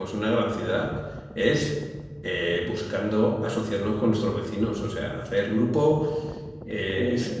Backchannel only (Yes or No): Yes